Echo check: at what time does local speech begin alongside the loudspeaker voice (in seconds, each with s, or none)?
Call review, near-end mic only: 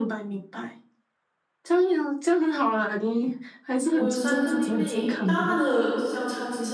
3.9 s